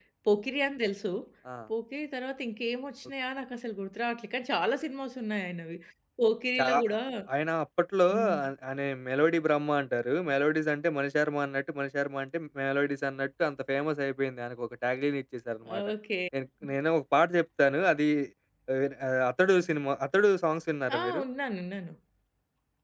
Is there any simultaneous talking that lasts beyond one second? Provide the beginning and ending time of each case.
none

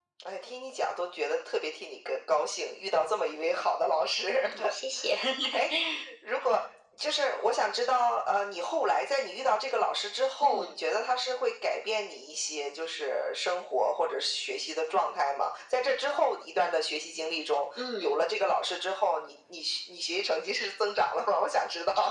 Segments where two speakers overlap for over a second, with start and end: none

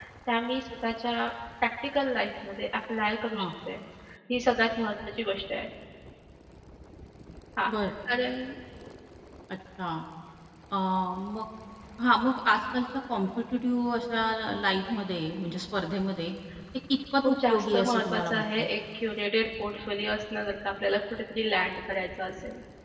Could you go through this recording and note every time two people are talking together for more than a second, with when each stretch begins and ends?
17.2-18.7

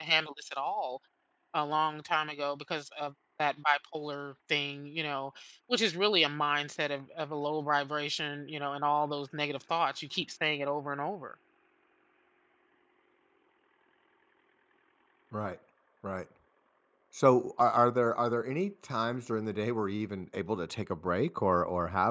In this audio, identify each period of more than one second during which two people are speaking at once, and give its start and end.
none

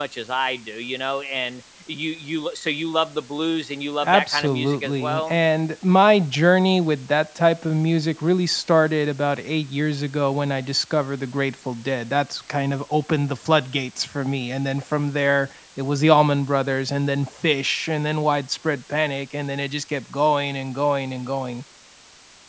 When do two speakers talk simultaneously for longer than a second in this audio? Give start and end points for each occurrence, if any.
4.0-5.4

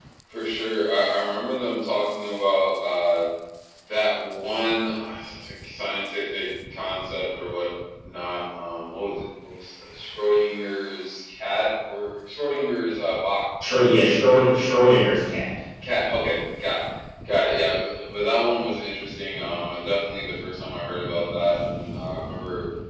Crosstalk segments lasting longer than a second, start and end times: none

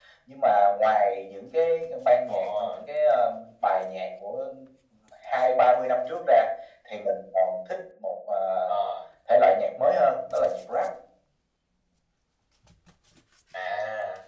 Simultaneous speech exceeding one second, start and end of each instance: none

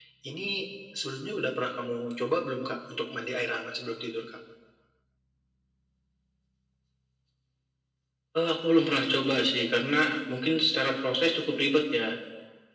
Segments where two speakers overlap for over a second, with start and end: none

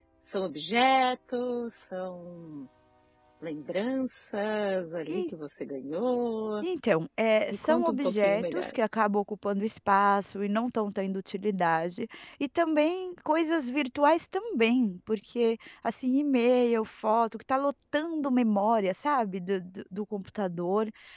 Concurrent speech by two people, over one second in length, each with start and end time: 7.5-8.7

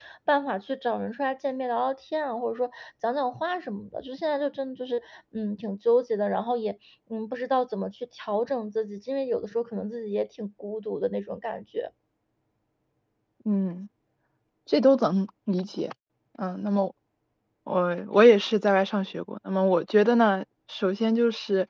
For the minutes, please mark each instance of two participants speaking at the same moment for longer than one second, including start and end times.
none

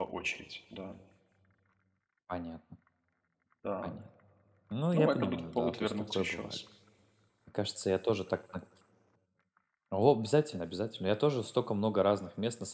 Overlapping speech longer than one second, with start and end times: 4.9-6.6

